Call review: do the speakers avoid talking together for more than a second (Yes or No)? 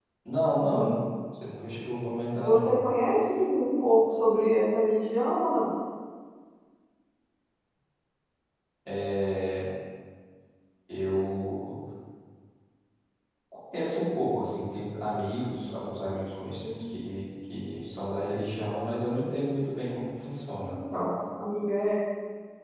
Yes